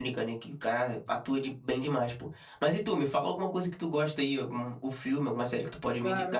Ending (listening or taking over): taking over